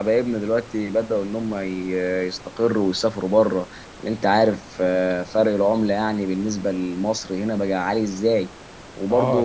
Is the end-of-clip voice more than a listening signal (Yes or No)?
No